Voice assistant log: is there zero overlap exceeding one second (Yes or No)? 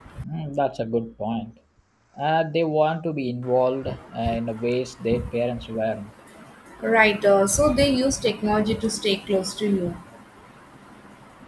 Yes